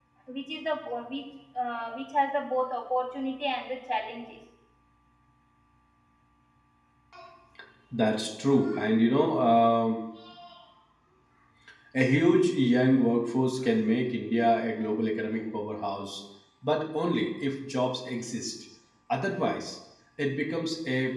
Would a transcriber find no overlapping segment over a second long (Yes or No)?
Yes